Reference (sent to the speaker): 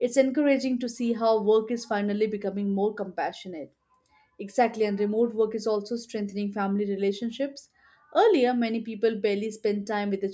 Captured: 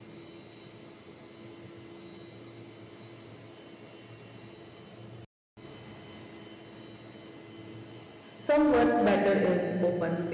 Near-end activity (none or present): present